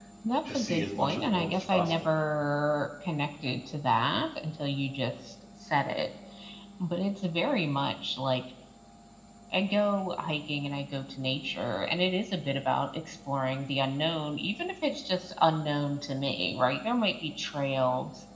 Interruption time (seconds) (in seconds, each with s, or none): 0.5 s